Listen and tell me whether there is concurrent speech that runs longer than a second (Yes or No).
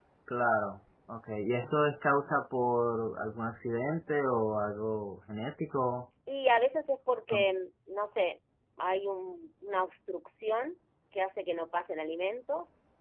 No